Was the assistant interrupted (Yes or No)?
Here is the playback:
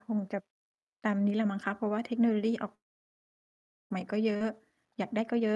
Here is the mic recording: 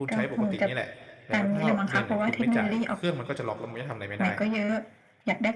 Yes